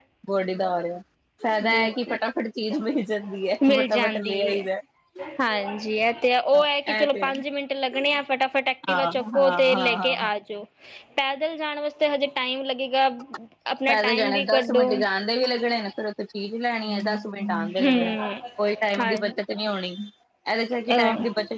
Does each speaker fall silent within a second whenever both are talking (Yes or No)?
No